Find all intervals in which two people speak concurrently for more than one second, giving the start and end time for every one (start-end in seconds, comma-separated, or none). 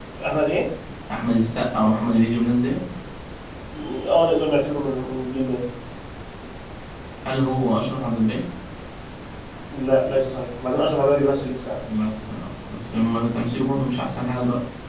none